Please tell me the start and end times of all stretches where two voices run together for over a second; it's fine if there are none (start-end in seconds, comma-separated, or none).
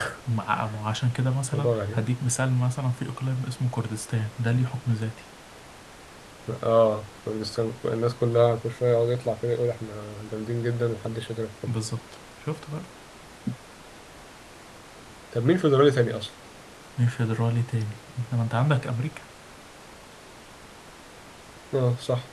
none